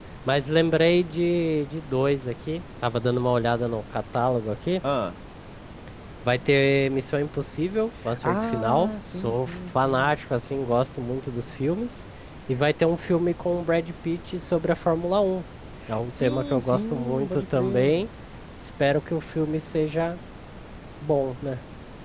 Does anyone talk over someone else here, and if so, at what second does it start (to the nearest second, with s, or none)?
8 s